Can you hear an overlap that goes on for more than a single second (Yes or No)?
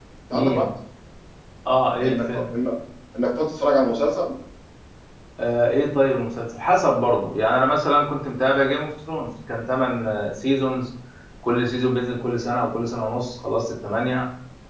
No